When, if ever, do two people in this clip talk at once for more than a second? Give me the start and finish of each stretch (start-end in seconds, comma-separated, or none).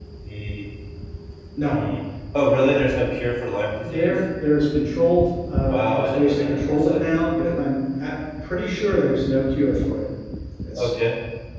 5.7-7.0